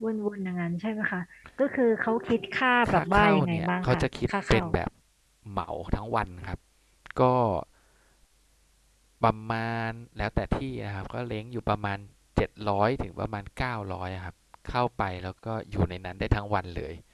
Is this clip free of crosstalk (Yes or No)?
No